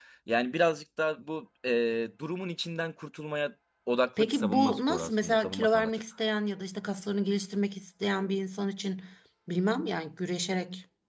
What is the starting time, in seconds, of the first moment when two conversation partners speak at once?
4.2 s

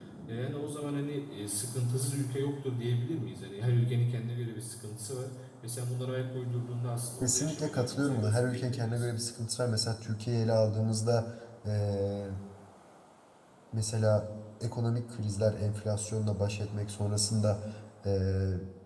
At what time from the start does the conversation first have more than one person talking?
7.2 s

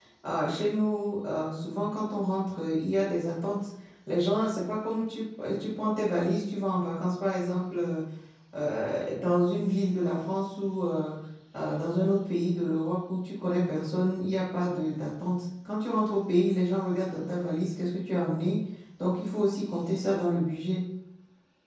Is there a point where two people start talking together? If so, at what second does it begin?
none

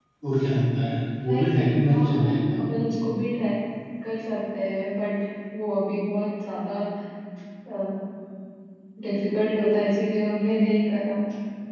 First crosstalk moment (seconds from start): 1.3 s

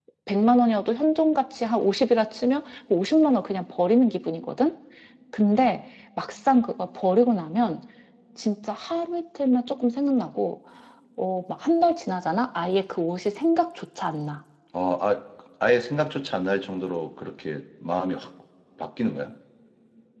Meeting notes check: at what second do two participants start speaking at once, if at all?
none

